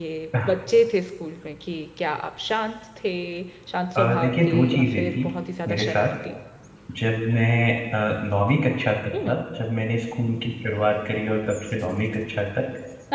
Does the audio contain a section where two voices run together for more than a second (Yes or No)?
Yes